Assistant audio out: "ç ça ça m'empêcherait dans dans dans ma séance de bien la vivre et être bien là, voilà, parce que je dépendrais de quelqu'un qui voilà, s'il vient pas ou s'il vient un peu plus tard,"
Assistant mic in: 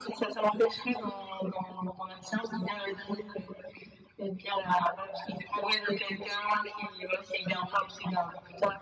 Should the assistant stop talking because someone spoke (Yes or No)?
No